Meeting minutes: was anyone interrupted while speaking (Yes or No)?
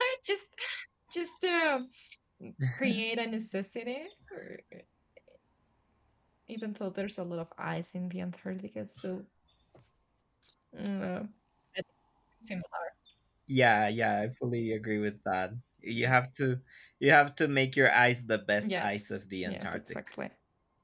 Yes